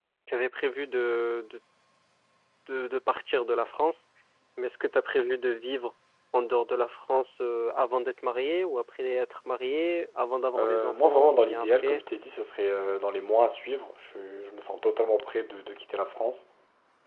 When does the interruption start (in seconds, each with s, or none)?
10.5 s